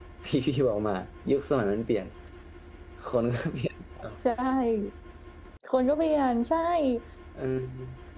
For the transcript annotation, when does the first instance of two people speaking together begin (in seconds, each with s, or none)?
none